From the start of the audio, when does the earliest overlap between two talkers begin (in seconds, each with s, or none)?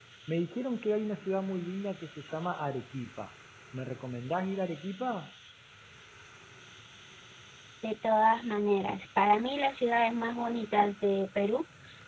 none